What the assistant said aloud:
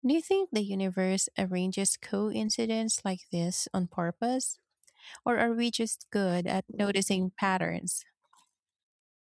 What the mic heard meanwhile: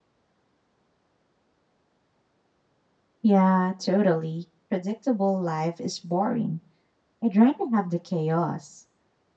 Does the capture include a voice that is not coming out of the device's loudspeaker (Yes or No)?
Yes